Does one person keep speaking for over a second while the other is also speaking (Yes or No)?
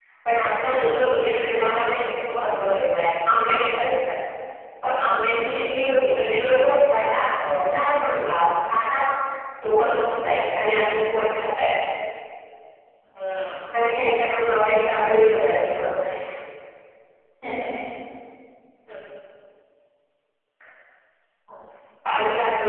No